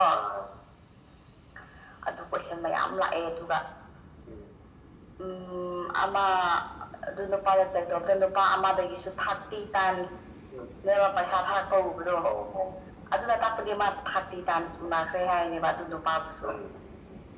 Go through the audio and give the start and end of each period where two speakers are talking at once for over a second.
none

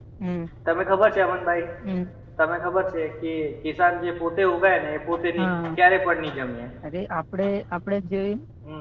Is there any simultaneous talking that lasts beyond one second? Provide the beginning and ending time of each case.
none

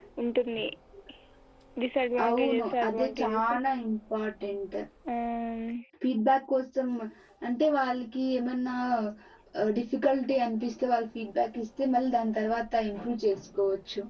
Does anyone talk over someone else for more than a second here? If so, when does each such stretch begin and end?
2.3-3.5

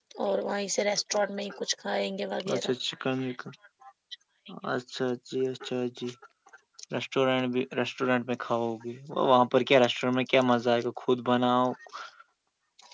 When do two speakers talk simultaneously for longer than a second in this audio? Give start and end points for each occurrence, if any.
none

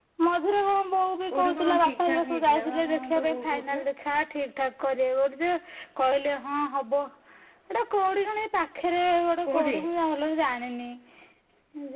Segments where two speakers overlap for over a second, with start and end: 1.3-3.8

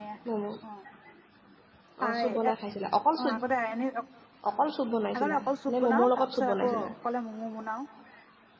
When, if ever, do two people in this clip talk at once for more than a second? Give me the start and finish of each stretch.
5.1-6.9

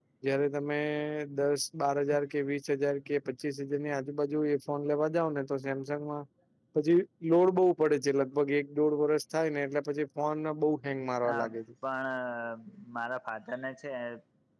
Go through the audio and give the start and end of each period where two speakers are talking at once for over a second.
none

